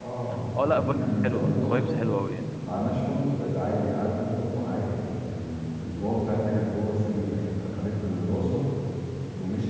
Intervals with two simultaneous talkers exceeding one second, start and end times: 0.6-2.0

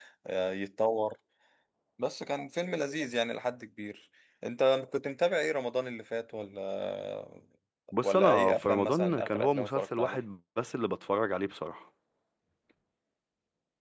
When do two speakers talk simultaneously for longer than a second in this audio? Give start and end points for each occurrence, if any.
8.0-10.2

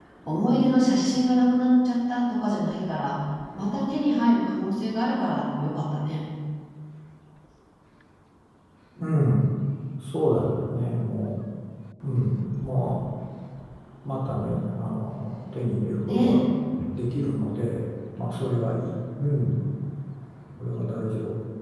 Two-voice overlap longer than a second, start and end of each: none

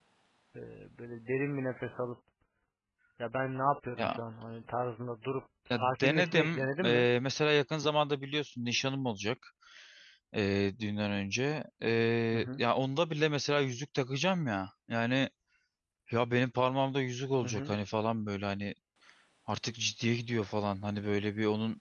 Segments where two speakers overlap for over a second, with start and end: 5.7-7.0

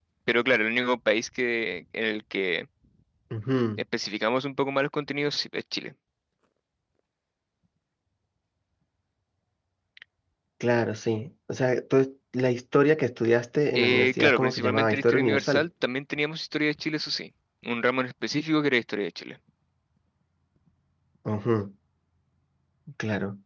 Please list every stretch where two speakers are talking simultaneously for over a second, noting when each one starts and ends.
13.8-15.7

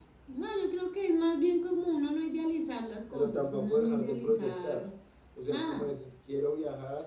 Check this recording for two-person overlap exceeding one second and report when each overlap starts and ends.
3.1-4.8

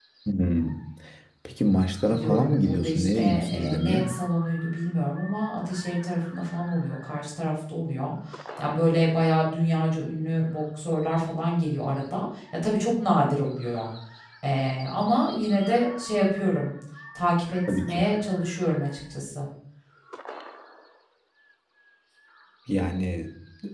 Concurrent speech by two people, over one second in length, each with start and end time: 2.2-4.1

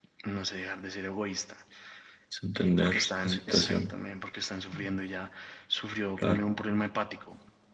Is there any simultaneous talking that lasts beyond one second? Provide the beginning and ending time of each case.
2.6-3.9

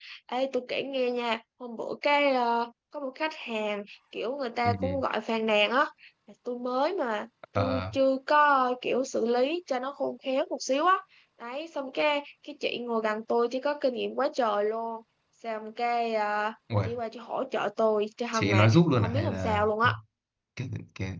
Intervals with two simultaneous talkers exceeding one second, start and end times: 18.3-19.7

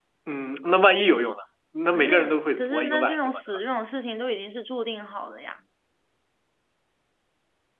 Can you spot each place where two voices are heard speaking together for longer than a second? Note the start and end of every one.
1.9-3.4

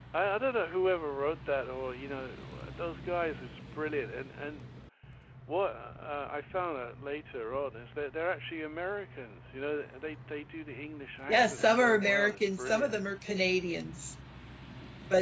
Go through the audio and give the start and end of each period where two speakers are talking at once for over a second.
11.3-13.0

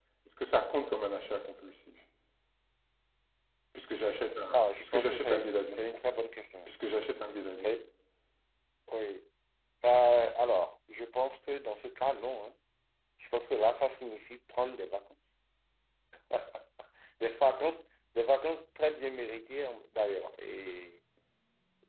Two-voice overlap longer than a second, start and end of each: 4.5-5.8

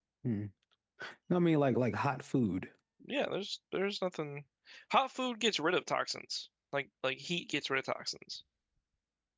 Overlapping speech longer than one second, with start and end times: none

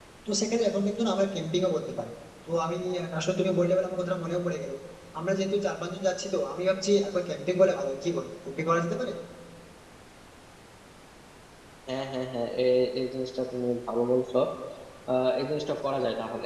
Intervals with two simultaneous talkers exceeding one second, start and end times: none

